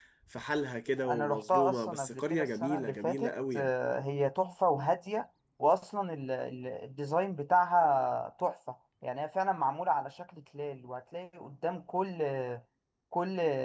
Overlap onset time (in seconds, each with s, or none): 1.1 s